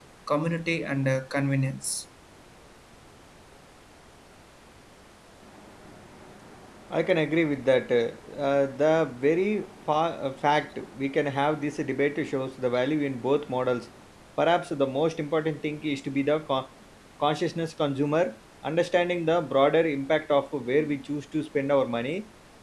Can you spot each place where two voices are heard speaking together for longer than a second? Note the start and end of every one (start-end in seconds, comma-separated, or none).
none